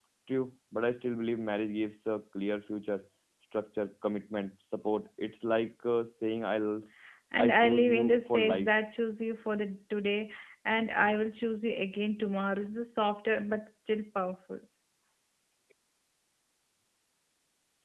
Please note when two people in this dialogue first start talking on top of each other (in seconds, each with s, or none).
7.4 s